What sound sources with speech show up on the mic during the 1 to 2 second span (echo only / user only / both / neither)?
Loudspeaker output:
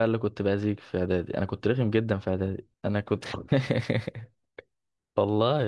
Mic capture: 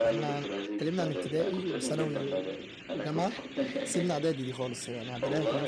both